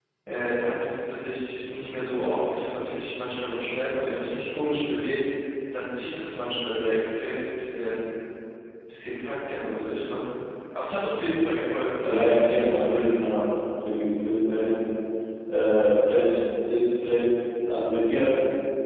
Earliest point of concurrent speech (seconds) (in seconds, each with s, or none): 12.0 s